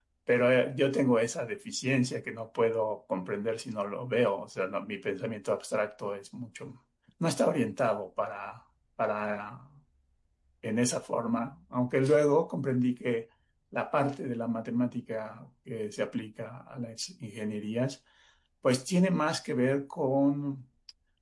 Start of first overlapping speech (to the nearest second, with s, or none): none